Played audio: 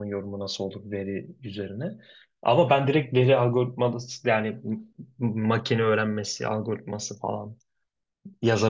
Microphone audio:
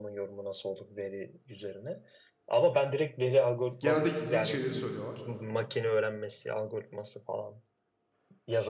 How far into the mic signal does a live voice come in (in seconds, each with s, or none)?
3.8 s